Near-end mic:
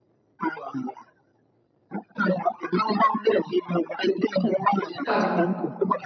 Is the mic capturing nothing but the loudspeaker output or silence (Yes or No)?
No